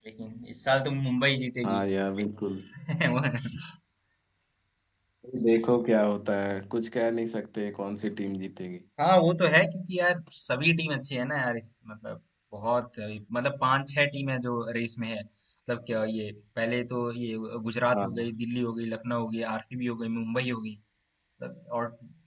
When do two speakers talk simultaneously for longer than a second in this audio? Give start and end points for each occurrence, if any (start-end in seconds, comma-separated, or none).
none